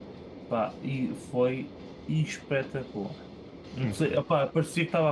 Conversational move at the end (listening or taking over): listening